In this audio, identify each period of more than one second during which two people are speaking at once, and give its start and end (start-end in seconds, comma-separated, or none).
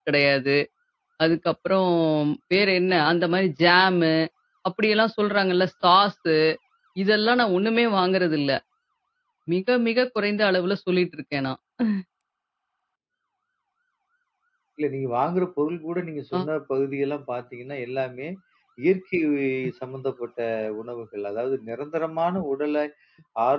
none